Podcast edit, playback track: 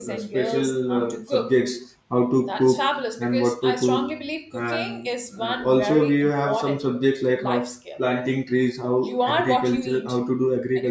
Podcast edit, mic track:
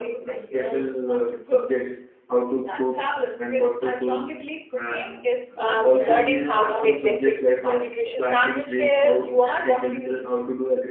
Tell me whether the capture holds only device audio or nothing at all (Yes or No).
No